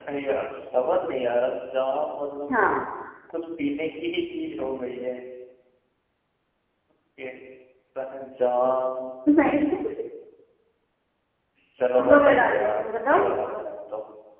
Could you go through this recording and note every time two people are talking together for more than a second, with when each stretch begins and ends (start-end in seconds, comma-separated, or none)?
12.0-13.3